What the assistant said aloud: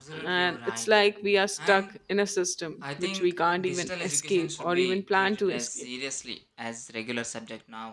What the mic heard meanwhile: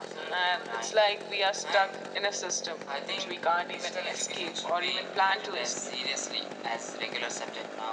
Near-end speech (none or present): none